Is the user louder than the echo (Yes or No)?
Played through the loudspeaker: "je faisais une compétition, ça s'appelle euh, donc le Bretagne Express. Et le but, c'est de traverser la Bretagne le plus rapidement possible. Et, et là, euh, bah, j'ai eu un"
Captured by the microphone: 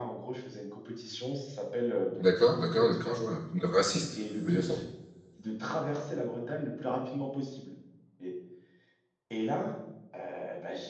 Yes